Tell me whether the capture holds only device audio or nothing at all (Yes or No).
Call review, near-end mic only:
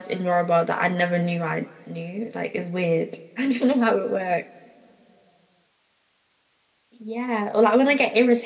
Yes